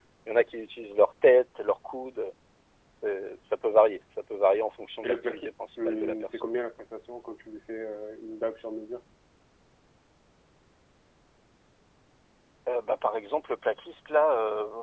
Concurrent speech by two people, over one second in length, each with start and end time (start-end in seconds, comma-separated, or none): 5.0-6.5